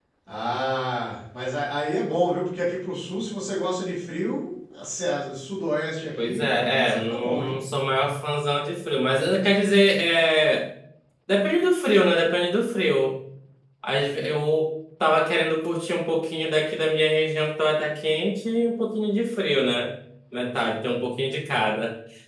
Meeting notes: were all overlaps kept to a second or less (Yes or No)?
No